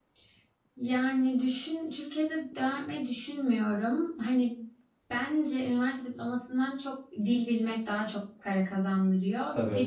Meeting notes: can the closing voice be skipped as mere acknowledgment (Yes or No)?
Yes